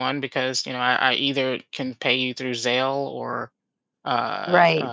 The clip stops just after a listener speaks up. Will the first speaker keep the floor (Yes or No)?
No